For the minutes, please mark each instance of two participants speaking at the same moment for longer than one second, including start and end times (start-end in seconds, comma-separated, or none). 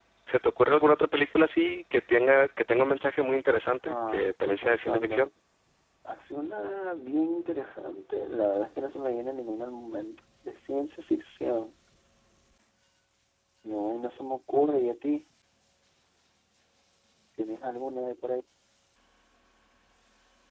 3.9-5.3